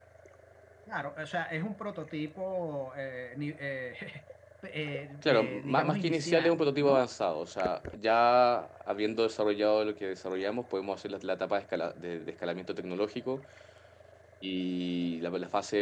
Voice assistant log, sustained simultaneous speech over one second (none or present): present